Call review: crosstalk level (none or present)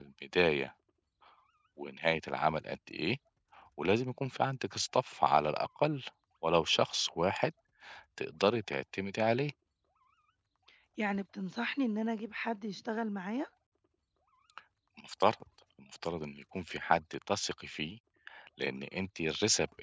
none